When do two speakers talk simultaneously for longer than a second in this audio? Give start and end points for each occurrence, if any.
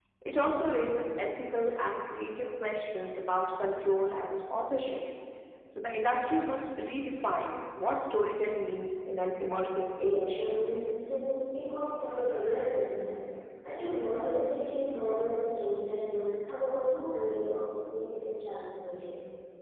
none

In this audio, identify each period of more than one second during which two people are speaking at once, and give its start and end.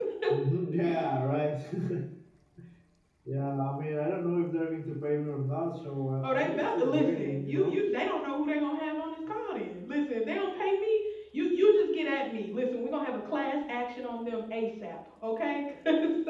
6.2-7.8

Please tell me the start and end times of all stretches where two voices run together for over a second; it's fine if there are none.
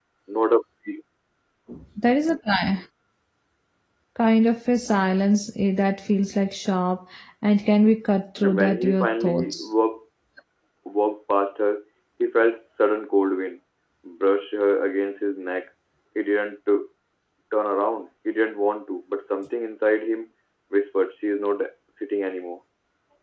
8.4-9.6

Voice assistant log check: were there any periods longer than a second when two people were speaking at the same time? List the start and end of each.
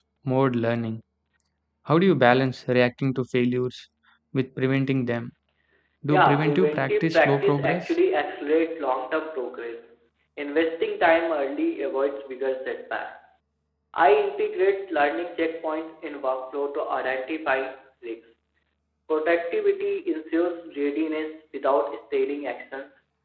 6.1-7.8

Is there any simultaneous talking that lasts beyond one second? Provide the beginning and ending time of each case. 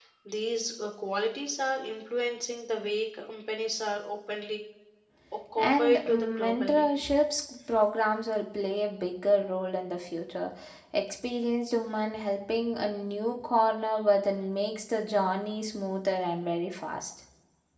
5.6-6.9

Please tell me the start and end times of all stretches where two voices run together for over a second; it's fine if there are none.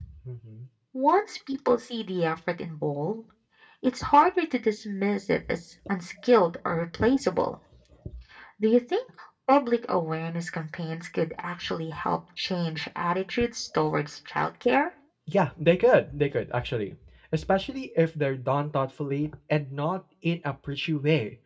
none

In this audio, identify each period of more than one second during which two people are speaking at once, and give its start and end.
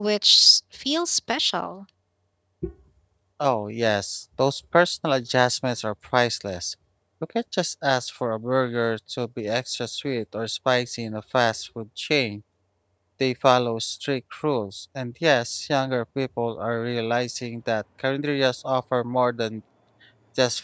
none

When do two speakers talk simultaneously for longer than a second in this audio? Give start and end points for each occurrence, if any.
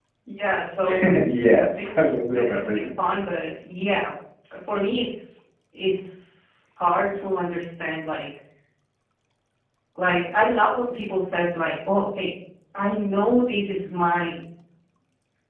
1.0-2.9

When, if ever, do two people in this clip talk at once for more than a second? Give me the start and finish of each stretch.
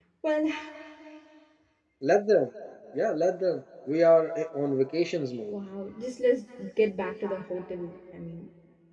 none

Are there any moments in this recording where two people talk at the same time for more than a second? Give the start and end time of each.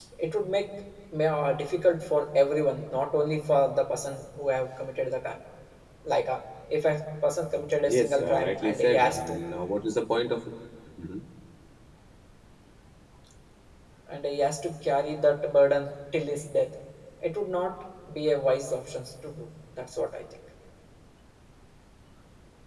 7.8-9.4

